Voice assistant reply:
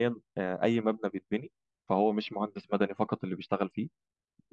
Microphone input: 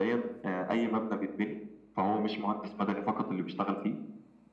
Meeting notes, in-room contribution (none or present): none